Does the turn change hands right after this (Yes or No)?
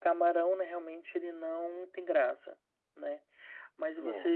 No